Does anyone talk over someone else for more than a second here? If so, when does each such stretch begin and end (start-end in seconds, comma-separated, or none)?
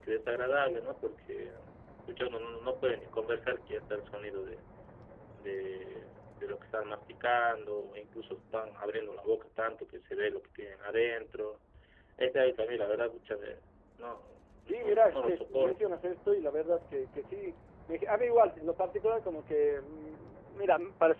14.7-15.9